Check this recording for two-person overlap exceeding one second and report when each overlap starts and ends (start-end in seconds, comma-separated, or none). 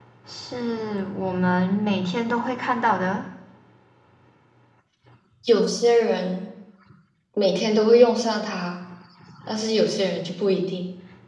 none